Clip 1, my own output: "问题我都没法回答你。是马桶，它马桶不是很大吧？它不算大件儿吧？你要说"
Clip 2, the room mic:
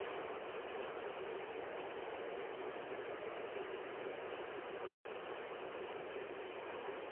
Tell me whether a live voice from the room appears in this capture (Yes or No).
No